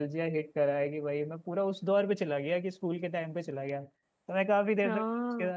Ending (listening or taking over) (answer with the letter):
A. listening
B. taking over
A